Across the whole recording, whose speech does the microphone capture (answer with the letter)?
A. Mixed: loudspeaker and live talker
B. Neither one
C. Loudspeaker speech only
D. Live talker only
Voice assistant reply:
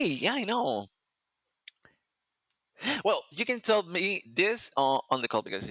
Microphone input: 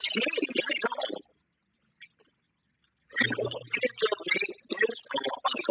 A